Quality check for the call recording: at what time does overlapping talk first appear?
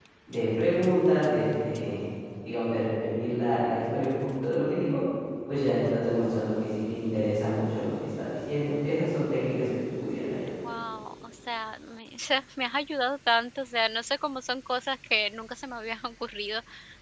none

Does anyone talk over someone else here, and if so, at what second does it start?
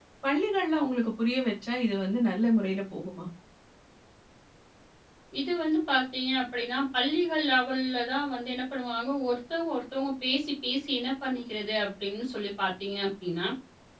none

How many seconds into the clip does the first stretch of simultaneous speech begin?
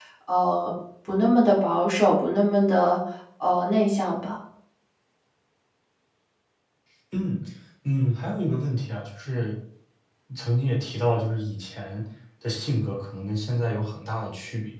none

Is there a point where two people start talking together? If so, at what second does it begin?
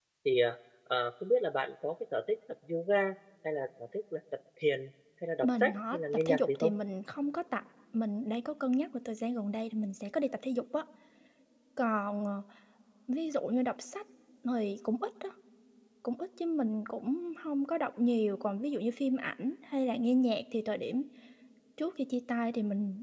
5 s

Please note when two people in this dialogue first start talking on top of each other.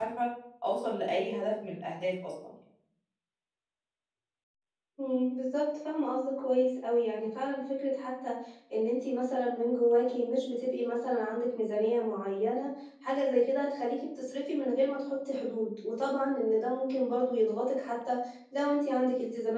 none

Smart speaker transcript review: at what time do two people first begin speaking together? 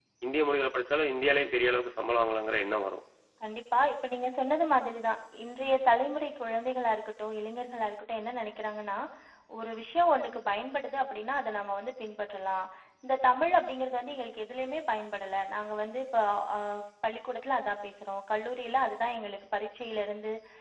none

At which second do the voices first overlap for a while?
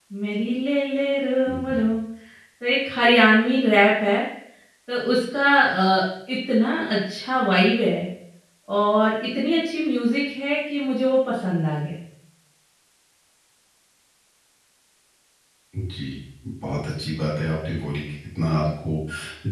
none

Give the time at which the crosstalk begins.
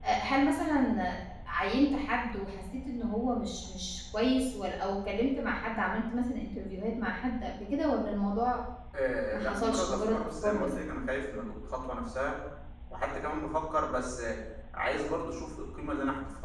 9 s

